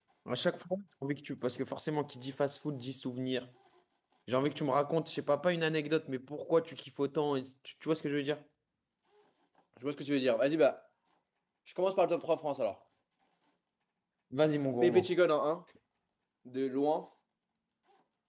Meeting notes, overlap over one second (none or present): none